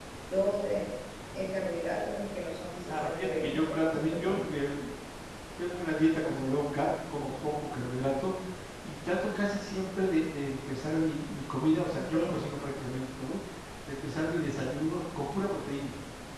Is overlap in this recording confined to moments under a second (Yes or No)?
No